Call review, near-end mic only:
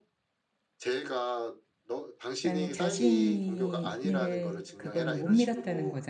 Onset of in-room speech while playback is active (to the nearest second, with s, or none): 2 s